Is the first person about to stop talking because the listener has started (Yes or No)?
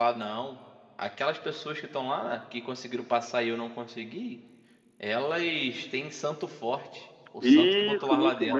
Yes